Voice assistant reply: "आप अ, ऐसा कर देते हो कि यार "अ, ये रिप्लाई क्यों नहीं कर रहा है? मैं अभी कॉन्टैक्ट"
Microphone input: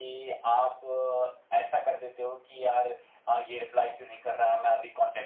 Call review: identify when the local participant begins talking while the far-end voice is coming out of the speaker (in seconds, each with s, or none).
none